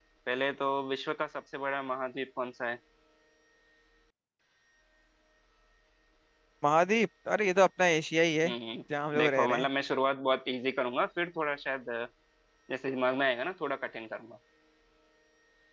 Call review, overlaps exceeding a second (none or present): none